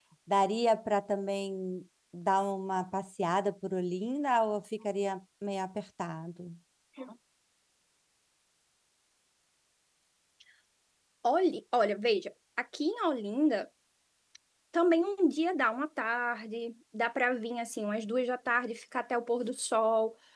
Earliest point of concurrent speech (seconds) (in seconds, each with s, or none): none